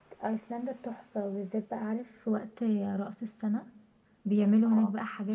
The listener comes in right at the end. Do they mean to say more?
No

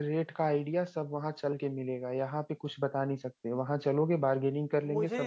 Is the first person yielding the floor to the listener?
Yes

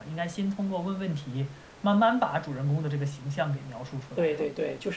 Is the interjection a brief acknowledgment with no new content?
No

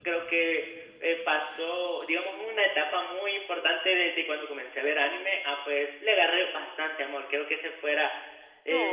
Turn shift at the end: No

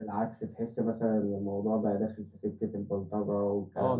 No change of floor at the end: No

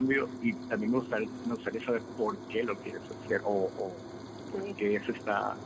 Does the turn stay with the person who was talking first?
Yes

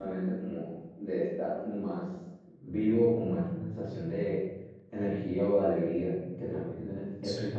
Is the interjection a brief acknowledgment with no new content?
No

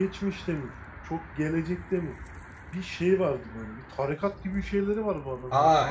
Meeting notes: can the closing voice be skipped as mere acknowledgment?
No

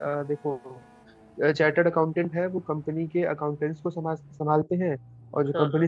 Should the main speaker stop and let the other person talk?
No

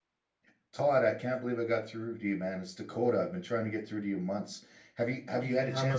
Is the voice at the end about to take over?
Yes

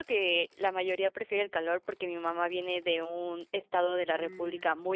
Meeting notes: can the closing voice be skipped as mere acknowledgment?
Yes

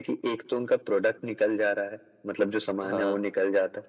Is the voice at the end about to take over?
No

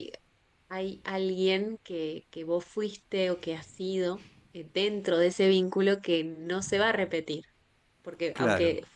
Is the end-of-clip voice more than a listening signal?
No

